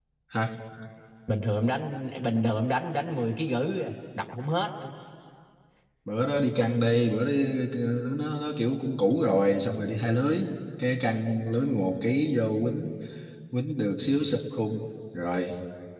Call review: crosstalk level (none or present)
none